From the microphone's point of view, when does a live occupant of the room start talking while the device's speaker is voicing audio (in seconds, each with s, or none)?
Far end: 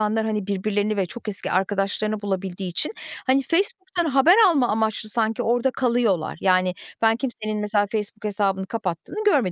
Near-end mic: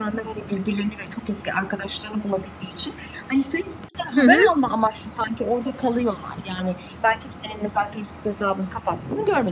4.2 s